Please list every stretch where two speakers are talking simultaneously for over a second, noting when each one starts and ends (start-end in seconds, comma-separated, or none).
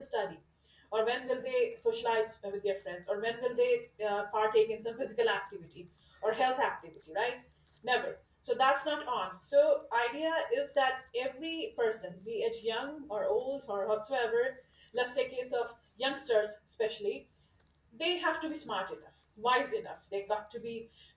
none